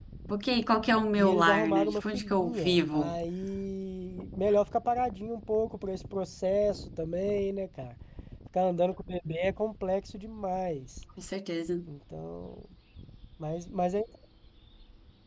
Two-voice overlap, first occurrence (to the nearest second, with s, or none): 1 s